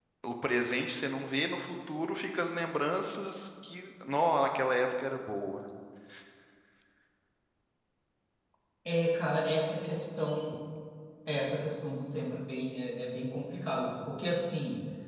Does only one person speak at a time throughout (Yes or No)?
Yes